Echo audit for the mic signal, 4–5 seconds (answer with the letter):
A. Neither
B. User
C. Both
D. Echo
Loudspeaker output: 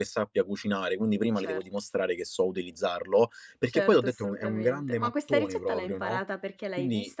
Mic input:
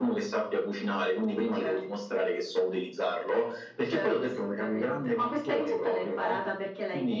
D